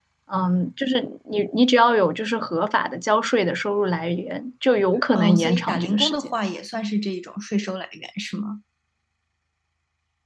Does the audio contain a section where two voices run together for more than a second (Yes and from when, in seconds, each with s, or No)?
Yes, from 5.1 s